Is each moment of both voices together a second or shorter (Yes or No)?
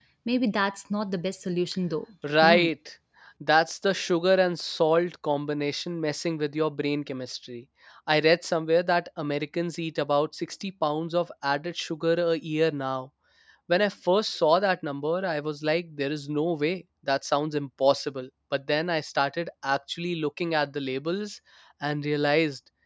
Yes